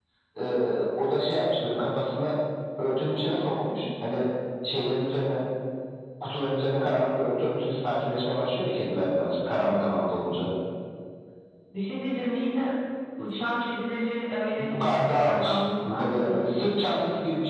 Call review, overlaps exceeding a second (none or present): present